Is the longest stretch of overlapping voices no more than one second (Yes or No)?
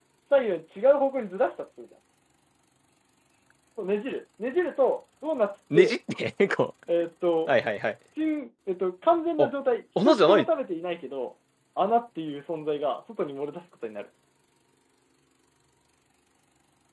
Yes